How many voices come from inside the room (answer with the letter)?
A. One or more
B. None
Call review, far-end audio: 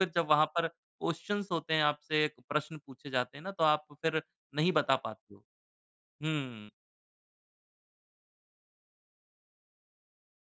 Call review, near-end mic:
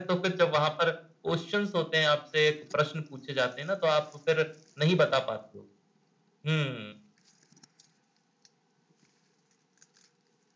B